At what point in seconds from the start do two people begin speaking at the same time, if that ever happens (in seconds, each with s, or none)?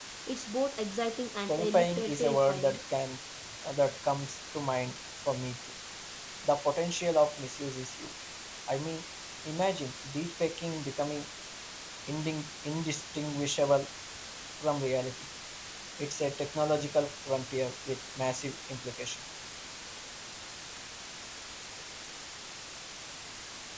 1.5 s